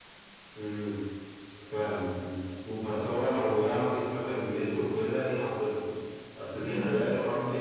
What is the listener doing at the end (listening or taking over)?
listening